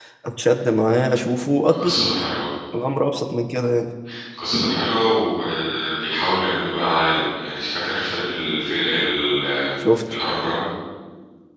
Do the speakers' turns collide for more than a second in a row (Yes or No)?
No